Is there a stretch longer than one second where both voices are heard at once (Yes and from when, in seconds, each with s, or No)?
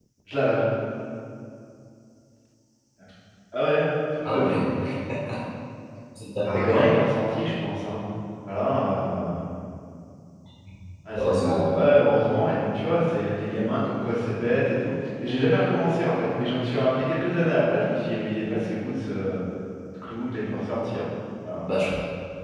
No